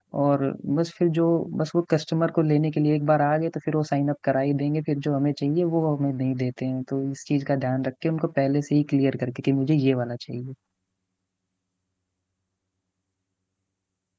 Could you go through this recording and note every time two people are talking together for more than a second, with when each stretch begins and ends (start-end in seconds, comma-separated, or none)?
none